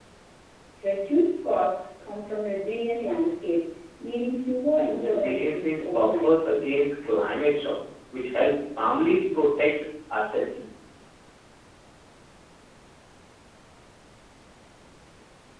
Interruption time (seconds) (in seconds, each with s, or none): 4.9 s